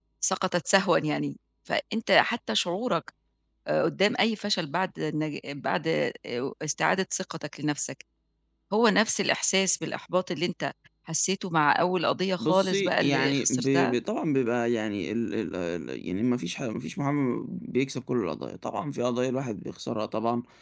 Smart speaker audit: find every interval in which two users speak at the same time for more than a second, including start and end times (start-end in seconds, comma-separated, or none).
12.4-13.9